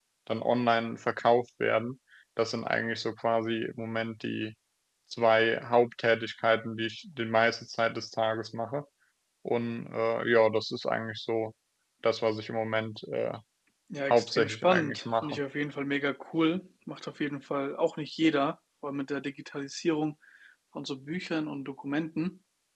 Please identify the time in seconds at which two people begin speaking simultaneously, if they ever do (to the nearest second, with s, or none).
14 s